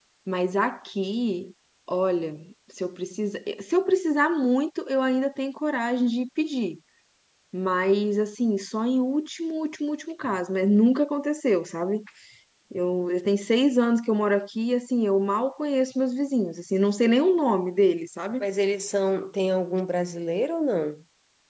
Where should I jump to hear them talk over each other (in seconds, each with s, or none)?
none